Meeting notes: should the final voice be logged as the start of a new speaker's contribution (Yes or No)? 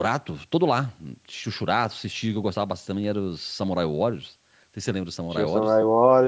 Yes